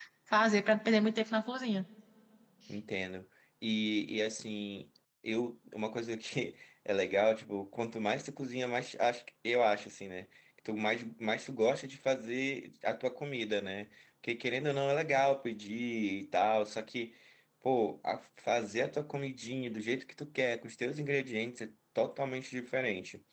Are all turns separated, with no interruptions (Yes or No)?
Yes